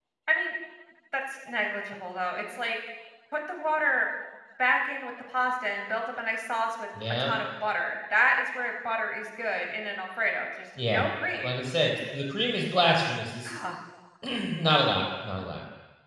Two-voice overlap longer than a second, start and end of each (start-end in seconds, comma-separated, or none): none